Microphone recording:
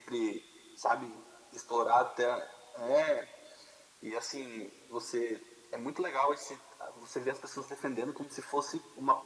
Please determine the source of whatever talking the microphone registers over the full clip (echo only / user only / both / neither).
echo only